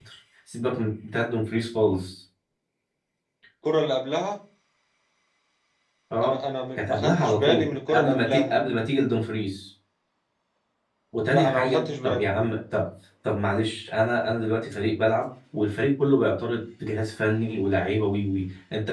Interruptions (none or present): present